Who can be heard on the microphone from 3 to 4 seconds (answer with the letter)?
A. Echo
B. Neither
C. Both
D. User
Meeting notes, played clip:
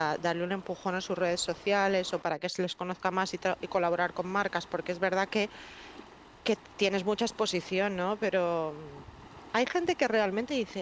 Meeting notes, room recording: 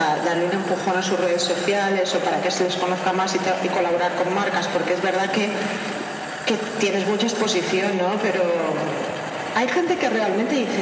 A